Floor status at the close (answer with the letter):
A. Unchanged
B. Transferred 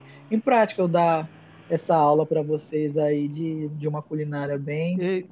B